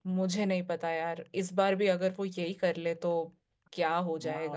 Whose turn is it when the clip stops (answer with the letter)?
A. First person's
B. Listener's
B